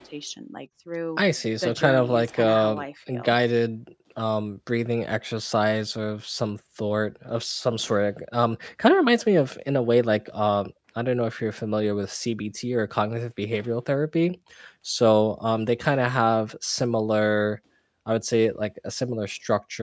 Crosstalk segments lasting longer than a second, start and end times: 1.6-3.4

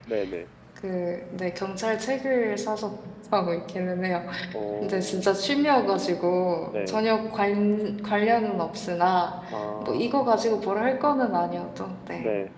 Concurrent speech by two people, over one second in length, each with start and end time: none

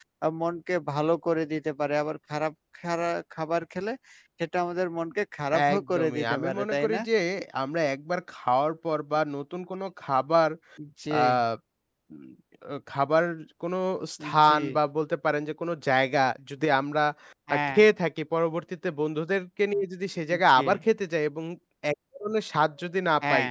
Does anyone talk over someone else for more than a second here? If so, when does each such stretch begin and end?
5.7-7.0

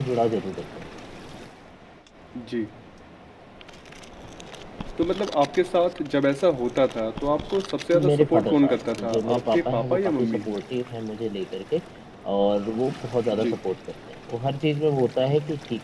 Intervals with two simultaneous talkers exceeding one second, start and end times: 8.1-10.4

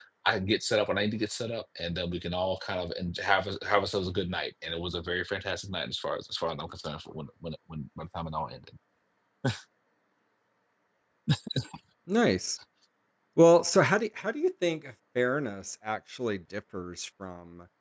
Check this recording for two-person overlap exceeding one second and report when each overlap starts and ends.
none

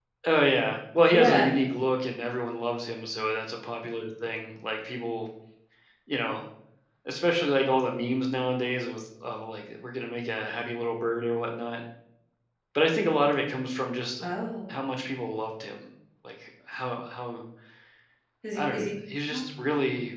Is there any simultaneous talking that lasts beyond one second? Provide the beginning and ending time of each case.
none

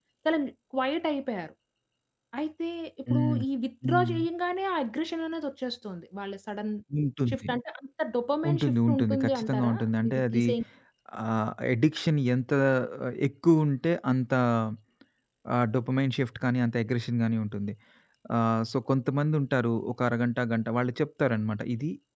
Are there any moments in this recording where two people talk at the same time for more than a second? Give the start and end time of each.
8.5-10.4

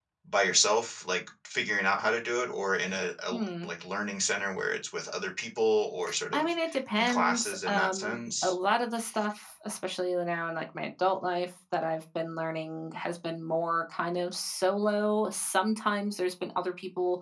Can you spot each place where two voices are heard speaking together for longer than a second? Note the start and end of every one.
7.0-8.5

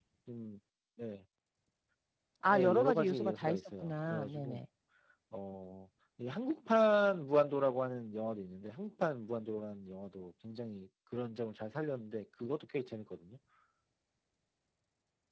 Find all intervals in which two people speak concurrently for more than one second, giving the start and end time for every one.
2.5-4.6

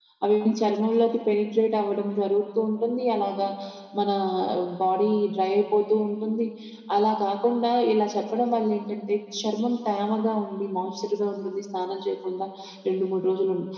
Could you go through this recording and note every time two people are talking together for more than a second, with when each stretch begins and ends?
none

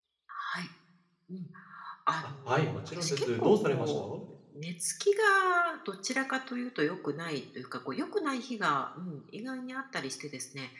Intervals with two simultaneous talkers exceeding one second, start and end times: 2.5-4.0

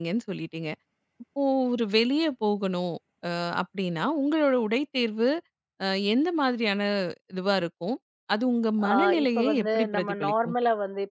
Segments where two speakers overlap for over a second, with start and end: 8.9-10.5

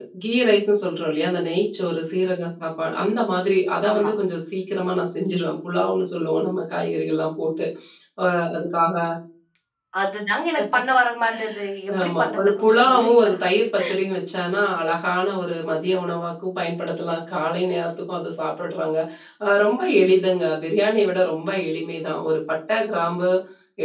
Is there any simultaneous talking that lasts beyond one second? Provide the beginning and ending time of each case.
12.0-13.3

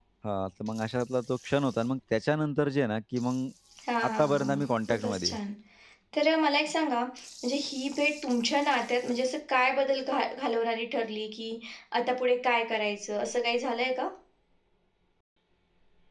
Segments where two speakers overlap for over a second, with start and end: 4.1-5.4

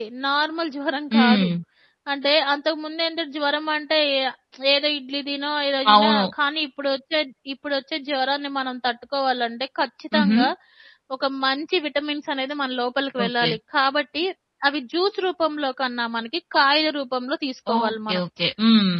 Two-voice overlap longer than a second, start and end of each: none

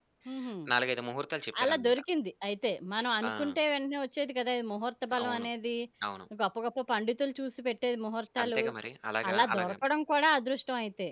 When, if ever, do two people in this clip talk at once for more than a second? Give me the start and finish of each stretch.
none

